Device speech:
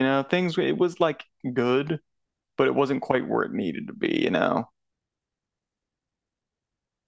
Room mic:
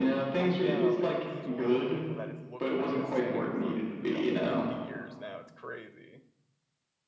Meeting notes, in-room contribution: present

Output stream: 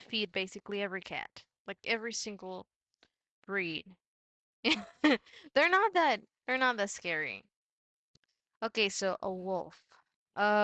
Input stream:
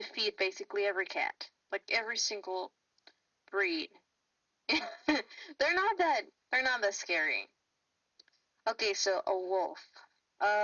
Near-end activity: none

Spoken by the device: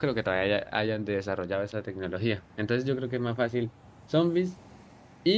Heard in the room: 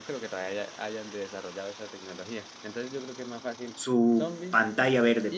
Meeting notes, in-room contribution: present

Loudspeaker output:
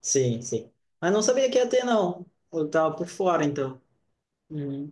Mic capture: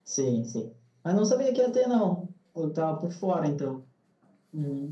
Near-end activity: none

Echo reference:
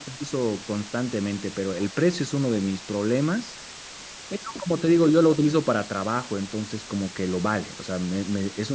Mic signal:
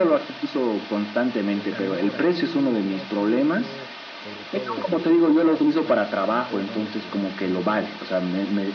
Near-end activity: present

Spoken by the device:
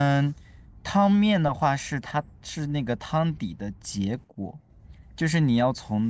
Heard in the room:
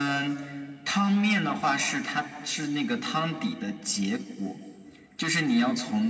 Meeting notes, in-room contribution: none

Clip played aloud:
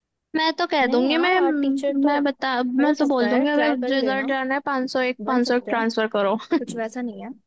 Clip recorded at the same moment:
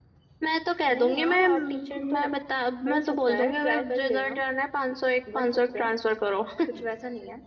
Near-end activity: none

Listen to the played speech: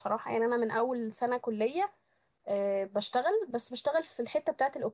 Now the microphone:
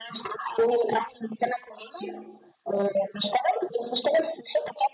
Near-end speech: none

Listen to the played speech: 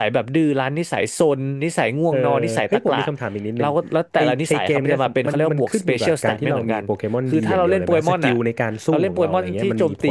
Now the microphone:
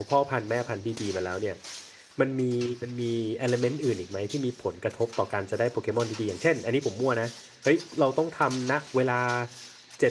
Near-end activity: present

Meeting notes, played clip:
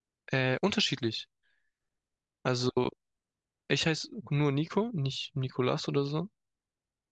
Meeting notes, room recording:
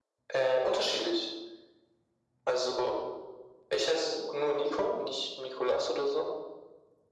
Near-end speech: none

